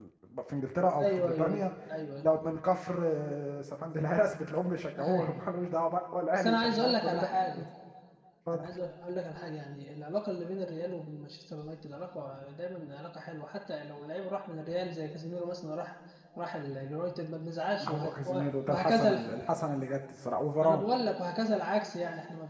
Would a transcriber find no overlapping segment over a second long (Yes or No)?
No